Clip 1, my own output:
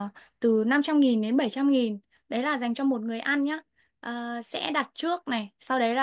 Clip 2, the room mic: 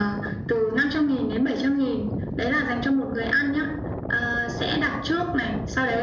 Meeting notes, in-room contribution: none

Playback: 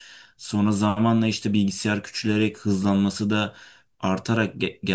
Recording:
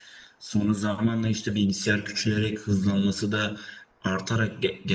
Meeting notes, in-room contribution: none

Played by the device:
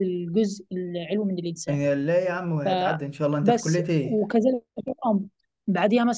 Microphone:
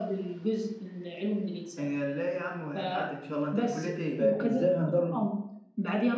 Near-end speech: present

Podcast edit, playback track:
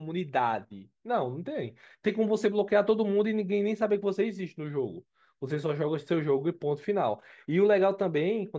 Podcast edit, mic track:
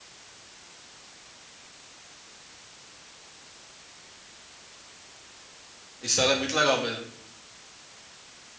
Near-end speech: present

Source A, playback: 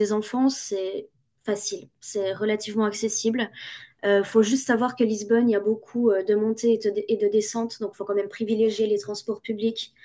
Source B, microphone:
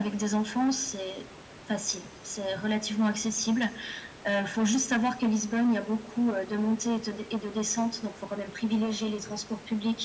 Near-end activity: none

